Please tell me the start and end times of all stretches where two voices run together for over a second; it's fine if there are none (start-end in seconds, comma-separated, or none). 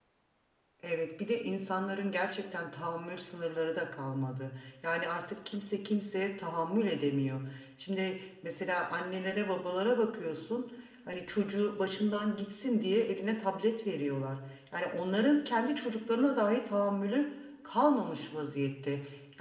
none